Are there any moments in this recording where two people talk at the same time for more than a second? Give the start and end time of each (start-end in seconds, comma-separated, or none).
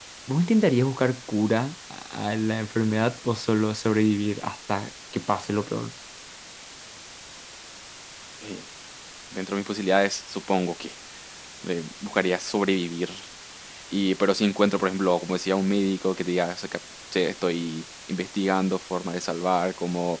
none